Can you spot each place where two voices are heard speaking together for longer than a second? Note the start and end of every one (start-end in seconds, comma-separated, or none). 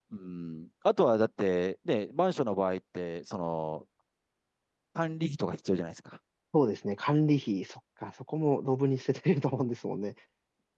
none